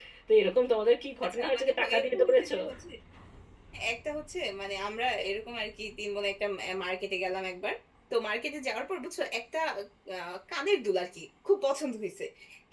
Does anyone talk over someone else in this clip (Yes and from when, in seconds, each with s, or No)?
Yes, from 1.2 s